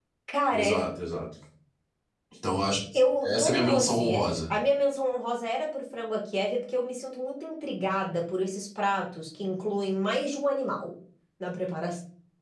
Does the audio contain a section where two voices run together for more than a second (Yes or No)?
Yes